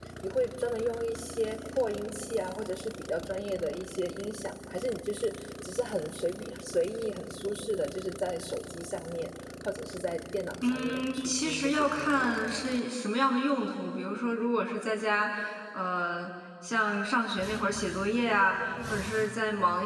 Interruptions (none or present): present